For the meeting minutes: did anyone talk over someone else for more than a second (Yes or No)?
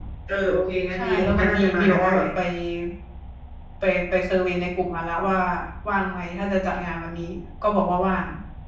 Yes